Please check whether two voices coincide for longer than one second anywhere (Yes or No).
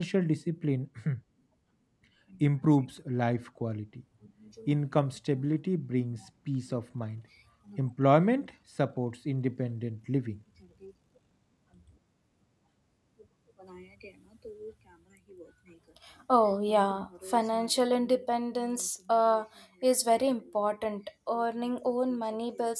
No